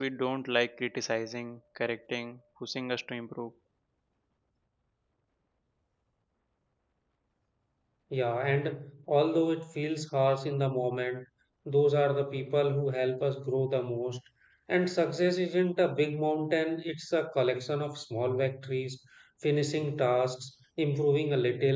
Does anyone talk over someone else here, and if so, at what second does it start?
none

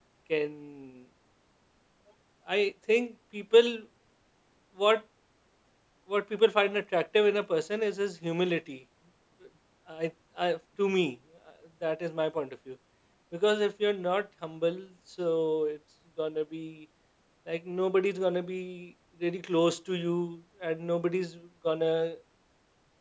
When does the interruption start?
none

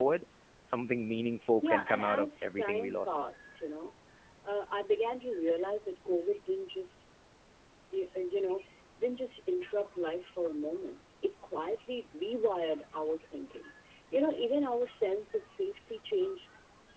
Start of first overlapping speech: 1.6 s

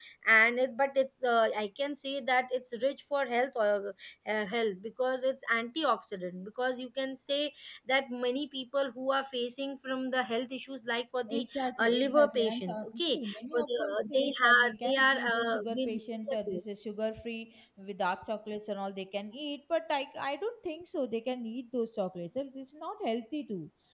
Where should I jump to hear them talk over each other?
11.3 s

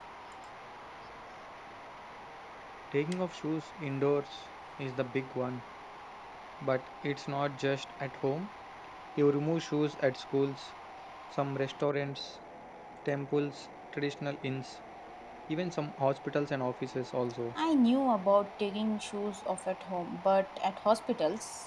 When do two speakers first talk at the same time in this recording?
none

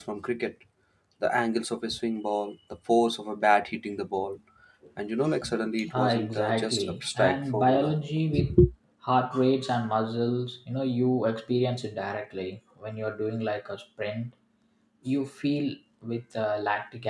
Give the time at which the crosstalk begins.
5.8 s

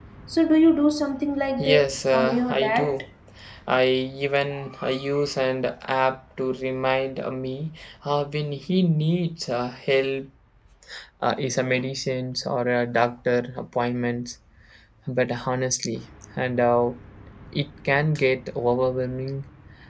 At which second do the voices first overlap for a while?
1.6 s

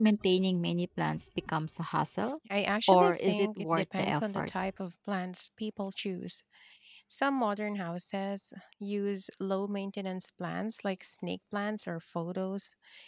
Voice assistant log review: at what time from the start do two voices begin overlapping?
2.9 s

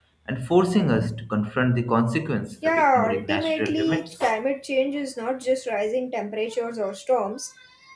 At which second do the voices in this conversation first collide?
2.6 s

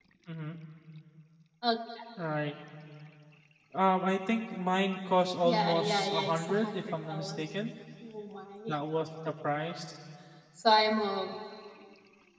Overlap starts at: 5.4 s

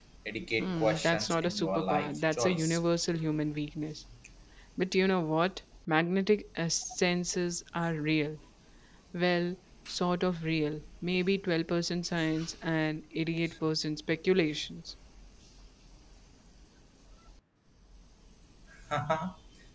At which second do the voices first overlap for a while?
0.6 s

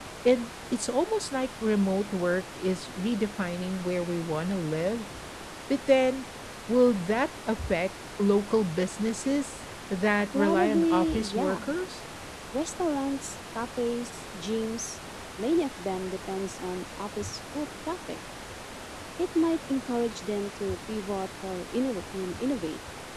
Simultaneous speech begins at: 10.3 s

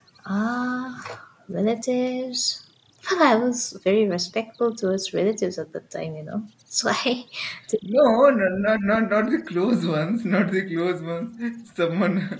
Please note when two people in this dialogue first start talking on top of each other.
none

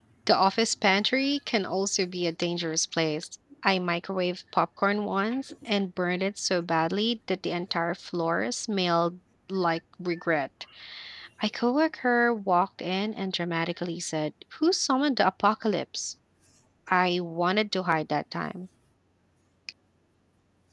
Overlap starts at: none

